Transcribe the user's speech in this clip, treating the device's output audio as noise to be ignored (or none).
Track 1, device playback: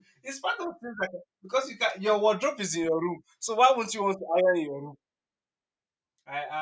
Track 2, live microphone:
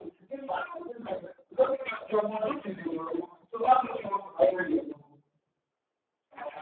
none